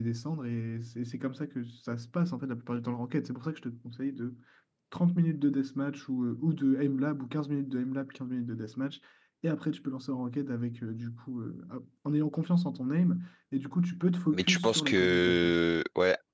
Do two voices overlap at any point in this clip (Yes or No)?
Yes